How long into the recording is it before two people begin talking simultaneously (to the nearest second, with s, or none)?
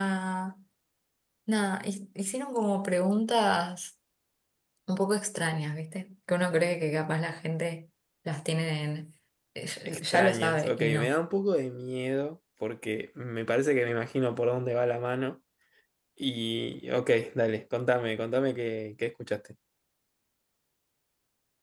10 s